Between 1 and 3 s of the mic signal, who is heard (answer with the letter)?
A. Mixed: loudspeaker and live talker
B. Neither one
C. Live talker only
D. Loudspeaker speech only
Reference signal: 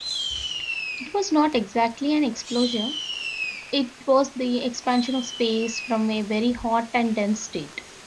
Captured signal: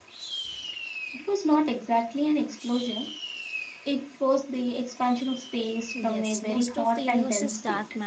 D